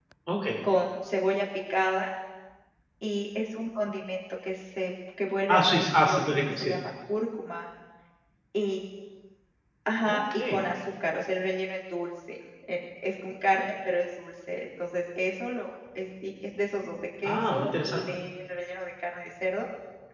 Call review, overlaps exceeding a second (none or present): present